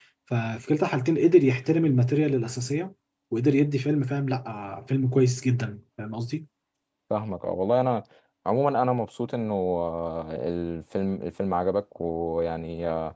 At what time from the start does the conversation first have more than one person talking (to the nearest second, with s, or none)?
none